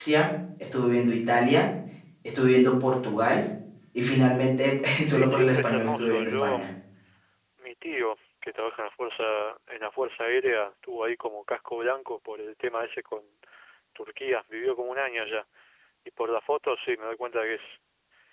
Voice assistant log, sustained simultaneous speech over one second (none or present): present